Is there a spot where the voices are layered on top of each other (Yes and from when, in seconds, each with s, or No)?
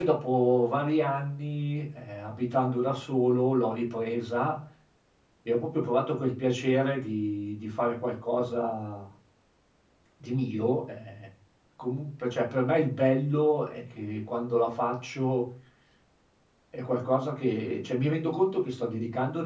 No